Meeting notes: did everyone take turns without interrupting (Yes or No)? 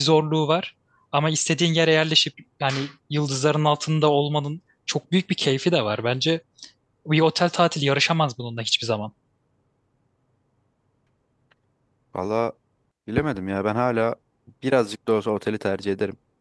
Yes